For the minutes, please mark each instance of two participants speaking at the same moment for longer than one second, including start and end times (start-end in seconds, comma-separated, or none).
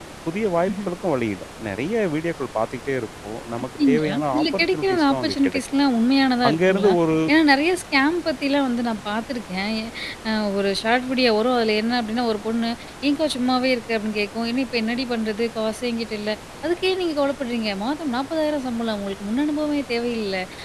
3.9-5.6